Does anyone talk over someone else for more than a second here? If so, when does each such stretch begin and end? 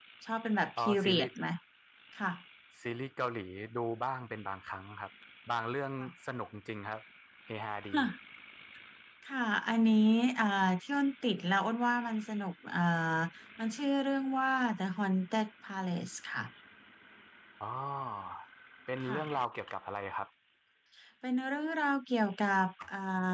none

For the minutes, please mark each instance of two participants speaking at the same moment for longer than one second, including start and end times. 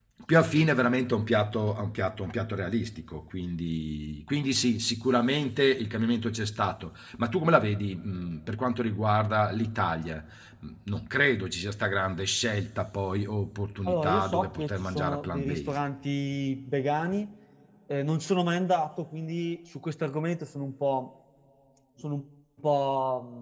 13.8-15.8

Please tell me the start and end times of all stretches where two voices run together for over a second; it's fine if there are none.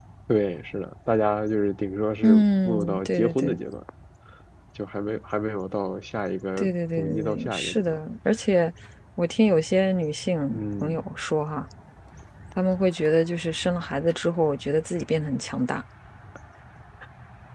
2.2-3.6, 6.6-8.0

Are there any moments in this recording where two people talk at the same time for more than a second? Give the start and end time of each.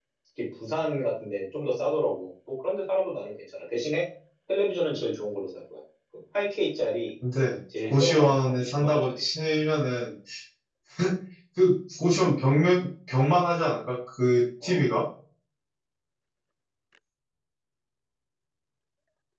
7.9-9.2

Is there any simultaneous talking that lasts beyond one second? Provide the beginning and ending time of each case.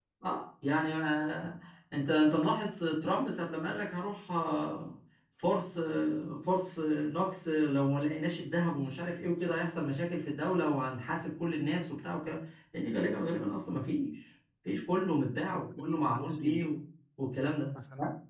15.4-16.6

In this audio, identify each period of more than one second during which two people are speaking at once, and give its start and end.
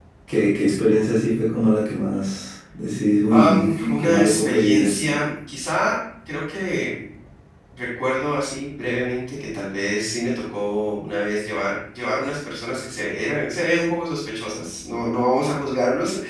3.3-5.1

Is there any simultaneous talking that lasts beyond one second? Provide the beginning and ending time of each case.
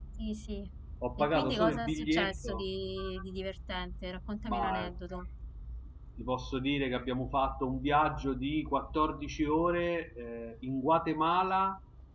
1.2-2.6

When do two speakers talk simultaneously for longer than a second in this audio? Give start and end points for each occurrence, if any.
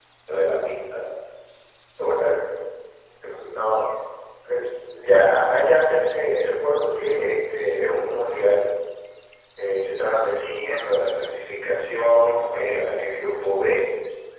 none

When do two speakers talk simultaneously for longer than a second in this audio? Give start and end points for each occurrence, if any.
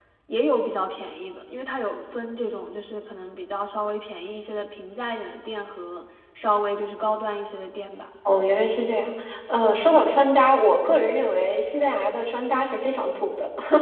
none

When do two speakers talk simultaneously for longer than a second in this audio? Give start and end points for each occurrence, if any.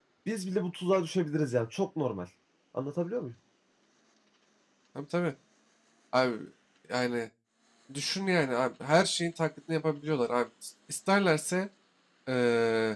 none

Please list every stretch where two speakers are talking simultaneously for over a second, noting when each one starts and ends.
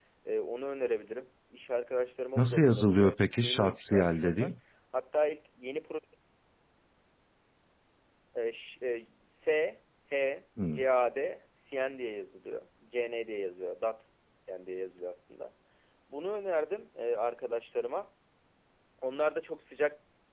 2.4-4.5

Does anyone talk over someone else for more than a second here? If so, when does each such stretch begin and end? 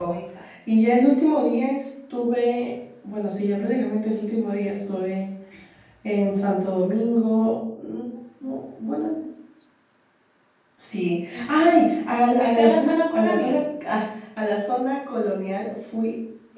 12.4-13.6

